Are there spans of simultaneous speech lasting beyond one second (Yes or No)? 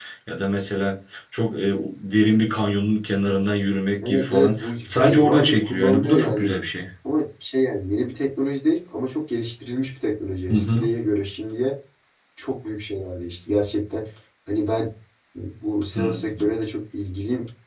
Yes